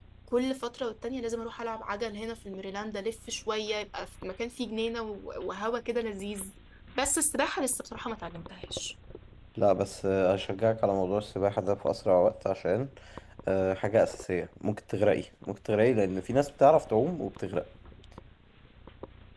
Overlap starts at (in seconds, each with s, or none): none